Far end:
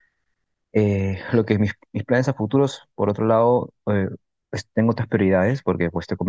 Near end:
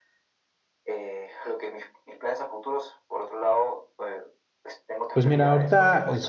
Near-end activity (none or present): present